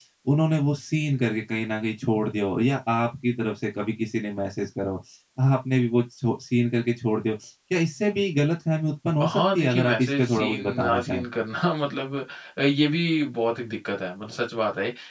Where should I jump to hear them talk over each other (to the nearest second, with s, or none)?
9 s